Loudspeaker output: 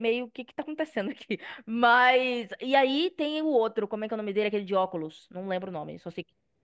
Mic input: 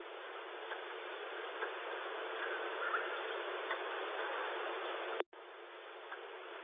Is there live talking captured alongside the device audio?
No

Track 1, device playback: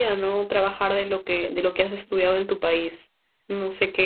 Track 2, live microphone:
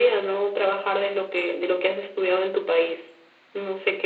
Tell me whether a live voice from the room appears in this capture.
No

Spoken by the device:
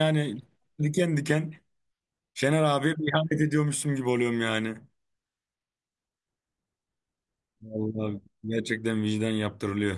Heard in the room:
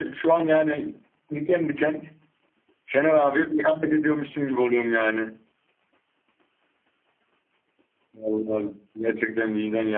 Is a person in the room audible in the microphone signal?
No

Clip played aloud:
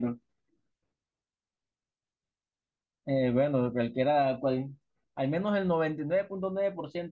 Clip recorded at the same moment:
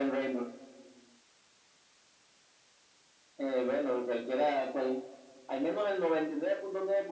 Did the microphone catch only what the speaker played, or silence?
Yes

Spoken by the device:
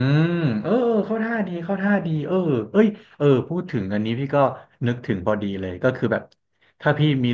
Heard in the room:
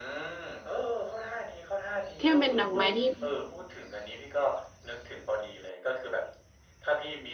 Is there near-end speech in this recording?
Yes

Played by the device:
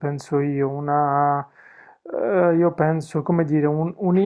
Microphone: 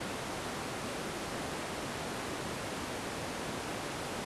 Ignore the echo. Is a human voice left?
No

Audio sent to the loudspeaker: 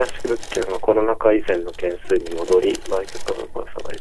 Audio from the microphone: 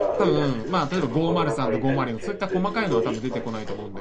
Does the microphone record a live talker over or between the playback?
Yes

